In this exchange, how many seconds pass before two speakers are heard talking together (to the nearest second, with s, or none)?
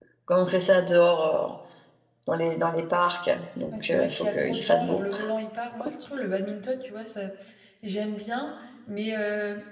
4 s